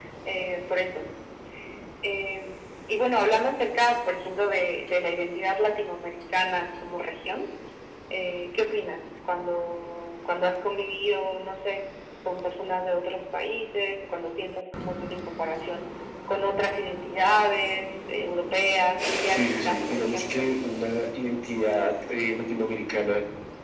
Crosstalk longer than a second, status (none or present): present